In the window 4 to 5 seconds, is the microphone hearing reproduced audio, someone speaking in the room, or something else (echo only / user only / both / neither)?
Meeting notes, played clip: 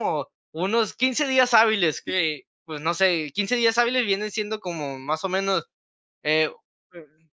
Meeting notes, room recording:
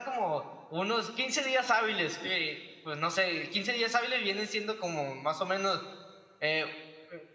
echo only